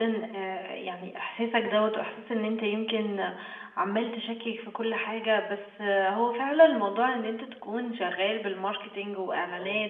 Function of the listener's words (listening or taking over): listening